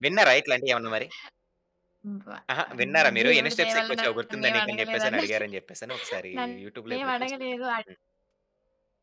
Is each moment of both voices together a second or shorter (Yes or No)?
No